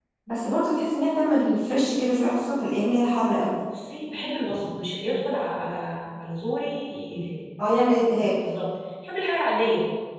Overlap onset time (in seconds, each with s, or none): none